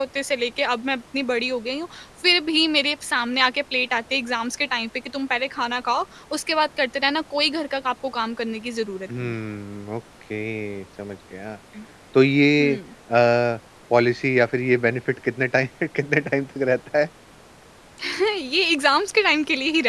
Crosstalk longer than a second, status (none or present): none